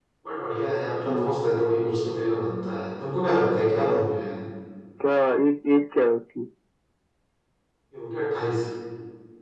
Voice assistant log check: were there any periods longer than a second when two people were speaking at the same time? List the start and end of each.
none

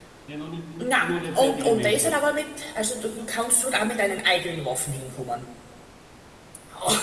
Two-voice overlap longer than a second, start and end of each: 0.8-2.1

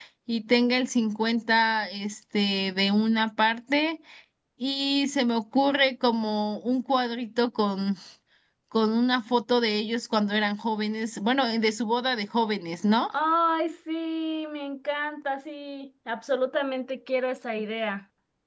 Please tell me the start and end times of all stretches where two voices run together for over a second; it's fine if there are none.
none

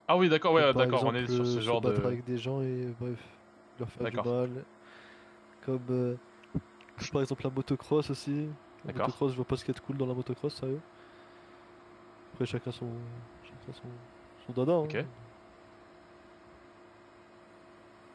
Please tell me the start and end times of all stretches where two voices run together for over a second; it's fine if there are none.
0.5-2.2

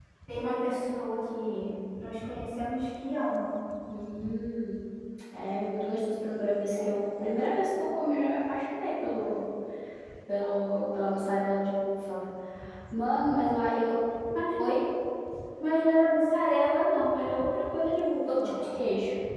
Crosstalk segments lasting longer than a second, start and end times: none

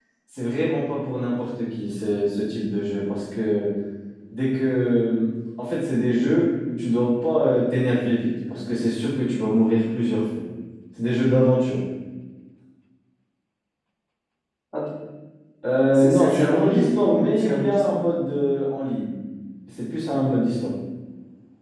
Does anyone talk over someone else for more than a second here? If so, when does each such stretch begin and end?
15.9-18.0

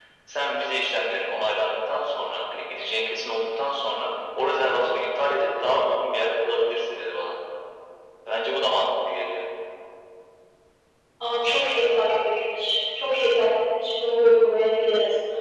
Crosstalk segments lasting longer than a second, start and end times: none

